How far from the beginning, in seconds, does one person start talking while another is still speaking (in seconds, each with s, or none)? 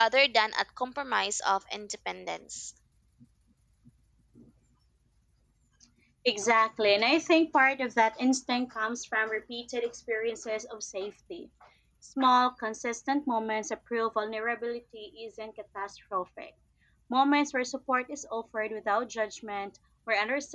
none